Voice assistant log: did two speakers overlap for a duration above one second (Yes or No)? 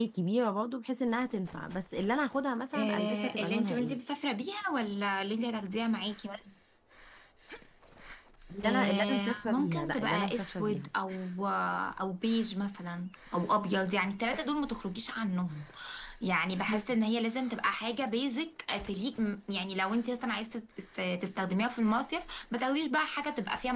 Yes